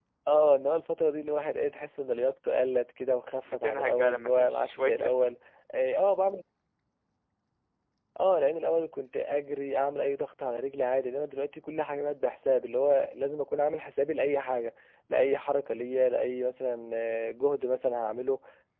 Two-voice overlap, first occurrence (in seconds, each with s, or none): 3.5 s